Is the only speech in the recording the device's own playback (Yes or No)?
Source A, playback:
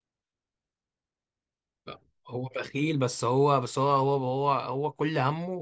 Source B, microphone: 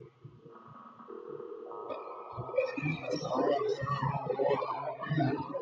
Yes